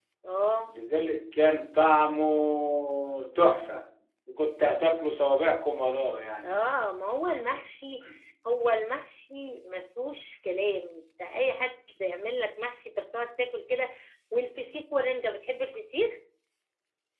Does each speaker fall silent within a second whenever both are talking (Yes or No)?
Yes